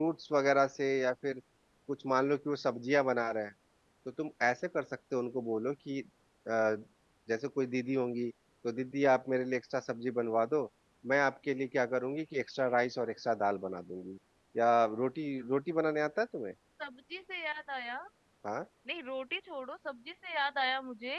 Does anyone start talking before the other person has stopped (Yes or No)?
No